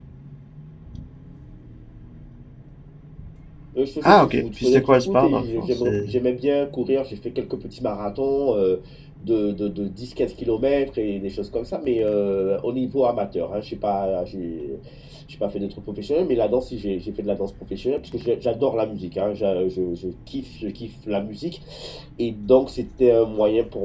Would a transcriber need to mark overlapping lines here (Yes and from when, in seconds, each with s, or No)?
Yes, from 4.0 s